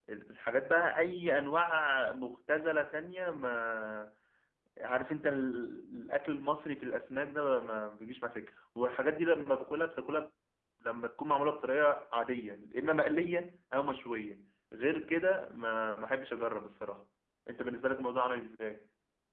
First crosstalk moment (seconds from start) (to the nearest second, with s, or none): none